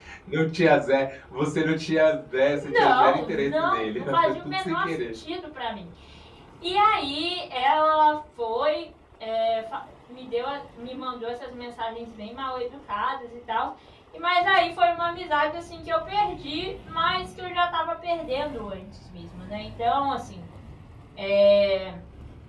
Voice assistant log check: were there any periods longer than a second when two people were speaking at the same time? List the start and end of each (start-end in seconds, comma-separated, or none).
2.5-5.2